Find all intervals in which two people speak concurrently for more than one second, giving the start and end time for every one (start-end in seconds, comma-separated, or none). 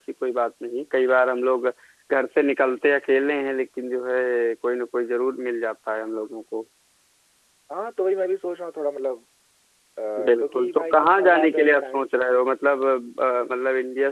10.4-12.1